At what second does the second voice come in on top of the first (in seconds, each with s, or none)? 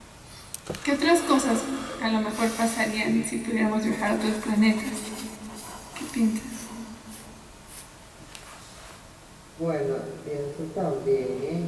none